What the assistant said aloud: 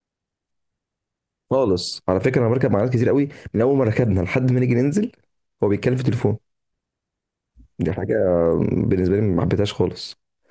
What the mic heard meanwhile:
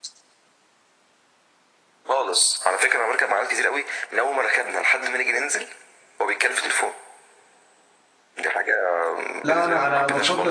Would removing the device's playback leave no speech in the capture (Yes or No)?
No